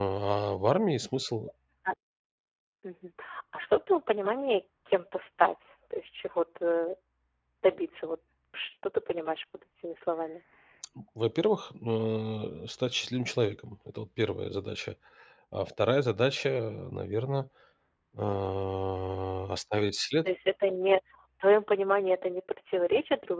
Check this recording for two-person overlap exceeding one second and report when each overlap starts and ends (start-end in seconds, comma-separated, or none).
none